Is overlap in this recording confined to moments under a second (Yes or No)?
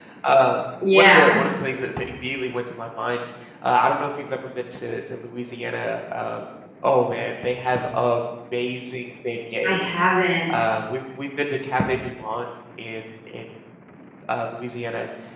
Yes